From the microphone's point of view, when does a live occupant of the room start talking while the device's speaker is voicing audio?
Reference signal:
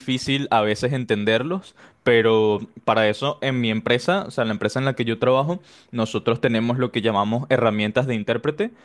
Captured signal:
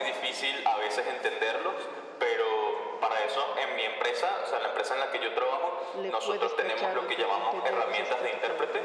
5.9 s

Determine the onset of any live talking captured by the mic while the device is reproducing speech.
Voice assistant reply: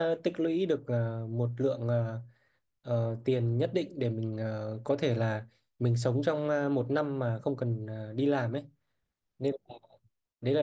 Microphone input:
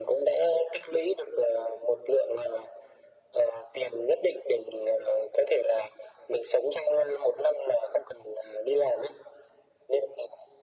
none

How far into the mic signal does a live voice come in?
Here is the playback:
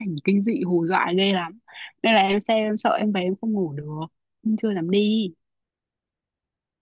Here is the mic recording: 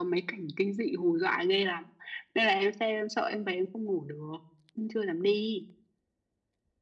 none

